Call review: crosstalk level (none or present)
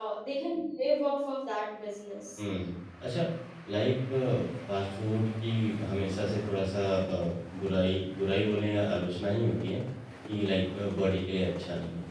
none